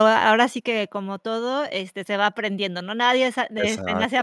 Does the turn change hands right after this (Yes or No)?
No